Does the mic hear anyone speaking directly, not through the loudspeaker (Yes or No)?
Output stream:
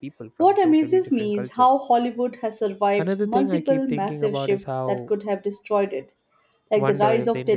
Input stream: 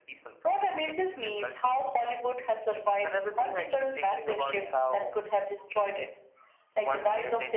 No